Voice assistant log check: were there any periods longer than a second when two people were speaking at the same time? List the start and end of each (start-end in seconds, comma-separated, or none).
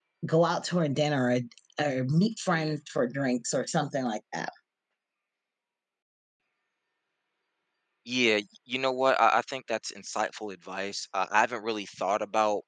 none